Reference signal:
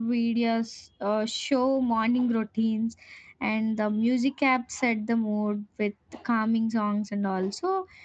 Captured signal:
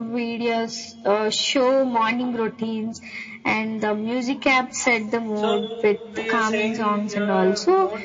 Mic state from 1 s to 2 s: echo only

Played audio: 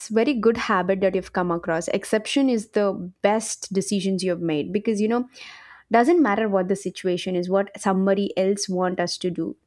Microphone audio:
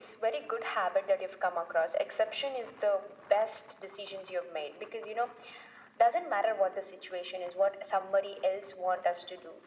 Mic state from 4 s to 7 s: echo only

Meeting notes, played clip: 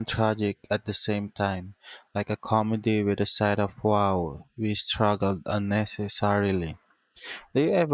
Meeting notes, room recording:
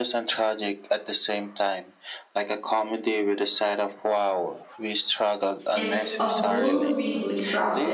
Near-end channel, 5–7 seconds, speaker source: both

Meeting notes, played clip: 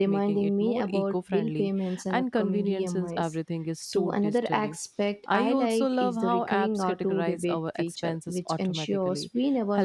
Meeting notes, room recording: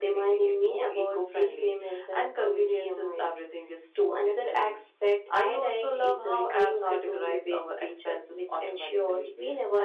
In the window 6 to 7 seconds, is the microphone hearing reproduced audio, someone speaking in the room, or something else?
echo only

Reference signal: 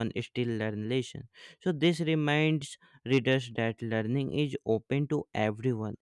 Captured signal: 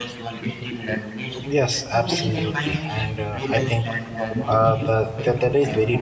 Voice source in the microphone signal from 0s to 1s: echo only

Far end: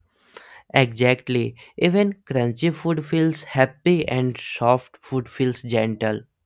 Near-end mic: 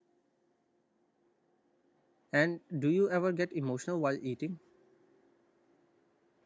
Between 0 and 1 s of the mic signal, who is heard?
neither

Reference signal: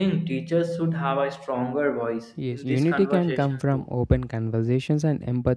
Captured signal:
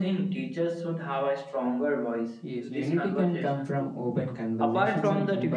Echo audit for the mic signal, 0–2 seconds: echo only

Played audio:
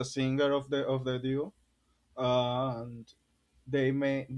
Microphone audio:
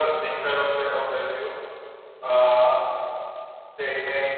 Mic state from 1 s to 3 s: echo only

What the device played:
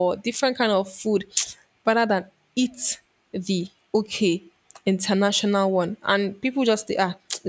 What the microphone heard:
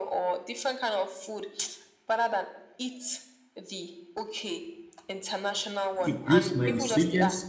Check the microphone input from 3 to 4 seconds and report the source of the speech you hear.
echo only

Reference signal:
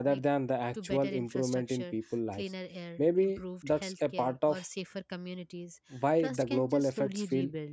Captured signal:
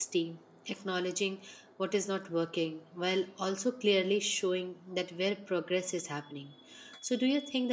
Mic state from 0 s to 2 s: user only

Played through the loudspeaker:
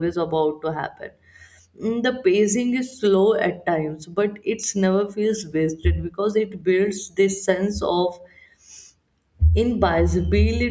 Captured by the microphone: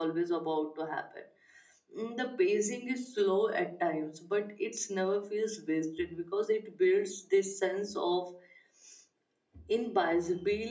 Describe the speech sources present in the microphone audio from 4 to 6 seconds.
echo only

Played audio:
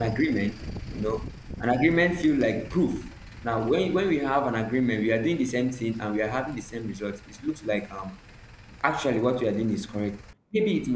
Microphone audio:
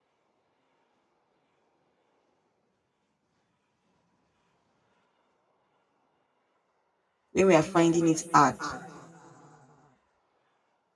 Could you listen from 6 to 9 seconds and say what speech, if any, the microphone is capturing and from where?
user only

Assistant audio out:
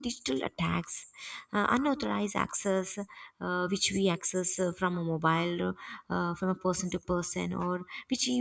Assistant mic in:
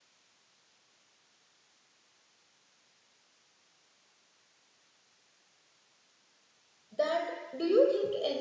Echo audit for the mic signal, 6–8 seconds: user only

